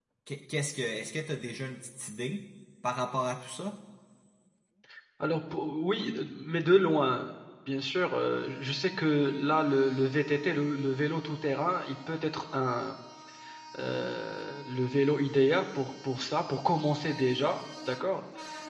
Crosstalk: none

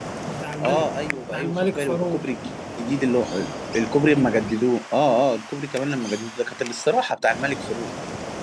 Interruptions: present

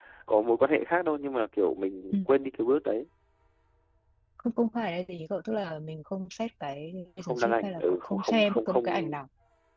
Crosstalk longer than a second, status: present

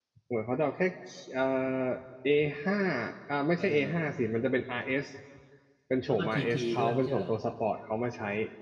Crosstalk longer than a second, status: present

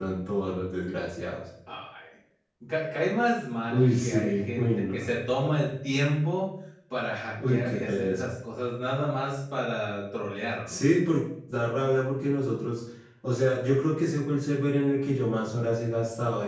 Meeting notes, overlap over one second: present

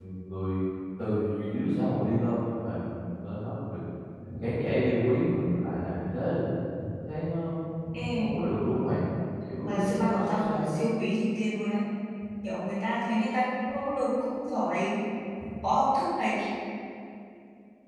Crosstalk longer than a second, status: present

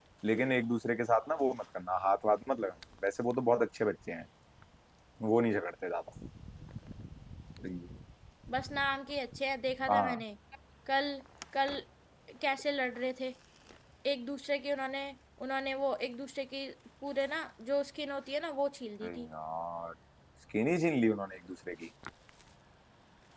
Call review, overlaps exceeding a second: none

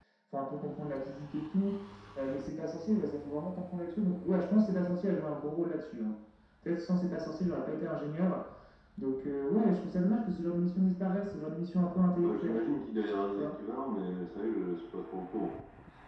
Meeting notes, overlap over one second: none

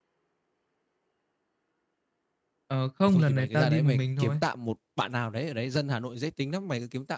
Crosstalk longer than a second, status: present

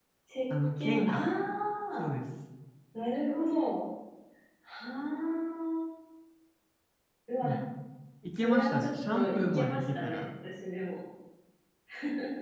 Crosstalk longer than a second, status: present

